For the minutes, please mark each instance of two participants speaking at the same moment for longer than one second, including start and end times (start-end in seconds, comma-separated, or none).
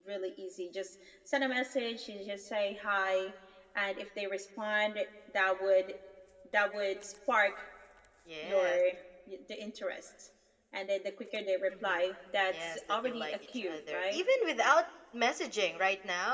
12.5-14.2